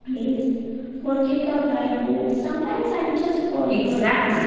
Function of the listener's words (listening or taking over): taking over